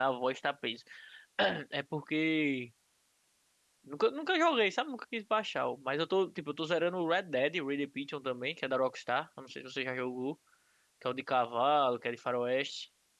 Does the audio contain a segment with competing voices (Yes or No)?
No